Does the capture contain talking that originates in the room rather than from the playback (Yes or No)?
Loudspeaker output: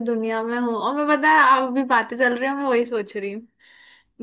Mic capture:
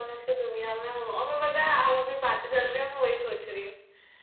No